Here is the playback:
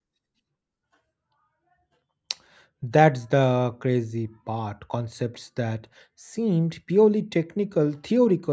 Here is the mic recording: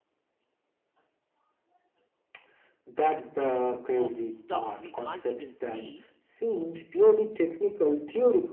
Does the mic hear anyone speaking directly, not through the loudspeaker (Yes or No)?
Yes